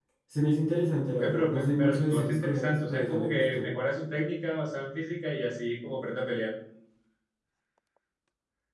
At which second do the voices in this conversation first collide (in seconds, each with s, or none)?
1.2 s